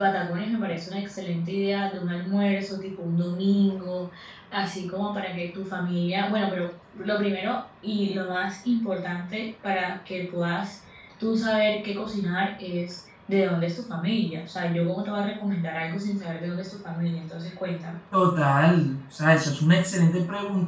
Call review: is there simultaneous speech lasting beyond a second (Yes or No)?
No